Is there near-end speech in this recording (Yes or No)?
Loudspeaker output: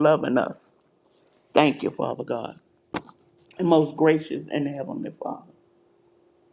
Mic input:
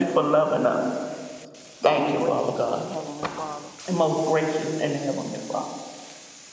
Yes